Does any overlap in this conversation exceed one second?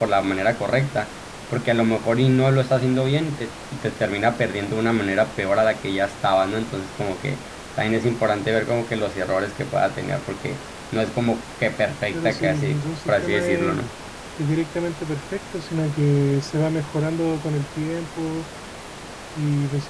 Yes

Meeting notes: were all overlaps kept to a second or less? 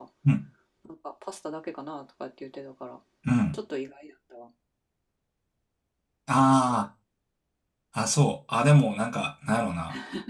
Yes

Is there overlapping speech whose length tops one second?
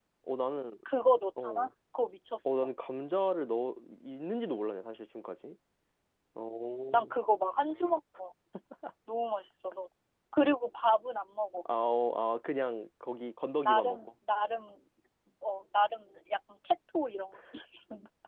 No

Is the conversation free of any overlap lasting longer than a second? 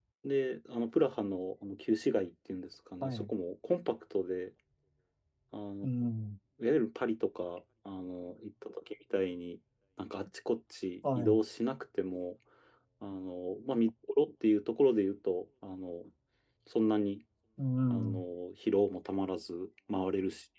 Yes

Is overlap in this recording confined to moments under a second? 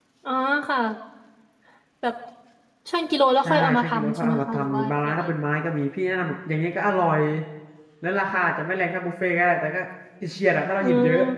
No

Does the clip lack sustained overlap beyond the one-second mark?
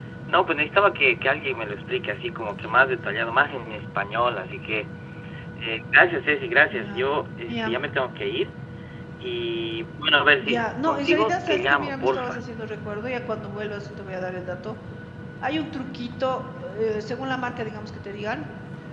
No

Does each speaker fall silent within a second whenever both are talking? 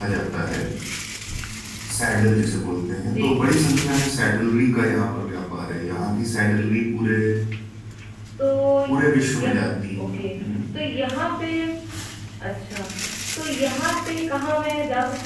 Yes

